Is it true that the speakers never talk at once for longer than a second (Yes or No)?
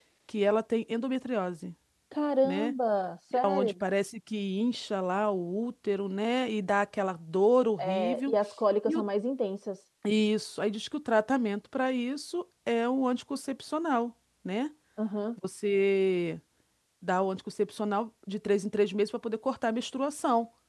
Yes